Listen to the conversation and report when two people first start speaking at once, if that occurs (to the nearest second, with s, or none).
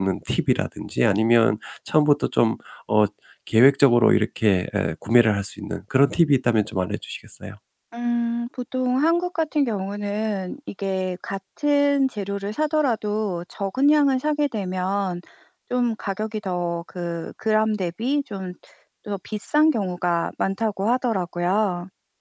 none